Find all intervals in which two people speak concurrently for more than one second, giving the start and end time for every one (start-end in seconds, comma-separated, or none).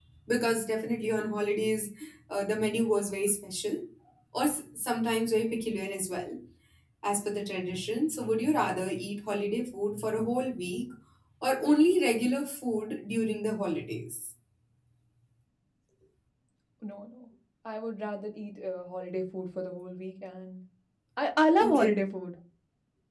none